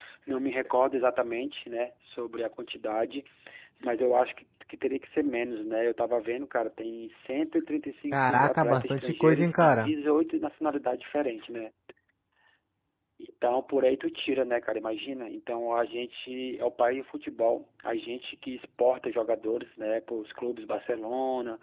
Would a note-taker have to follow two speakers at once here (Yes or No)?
Yes